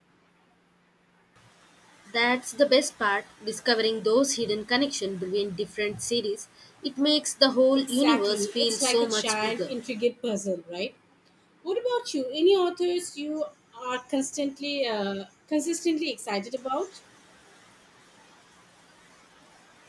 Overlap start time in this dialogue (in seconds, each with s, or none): 7.8 s